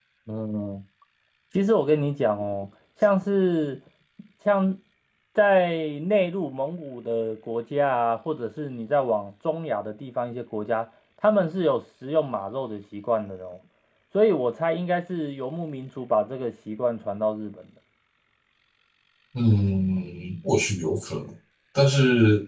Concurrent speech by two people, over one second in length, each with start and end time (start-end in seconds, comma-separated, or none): none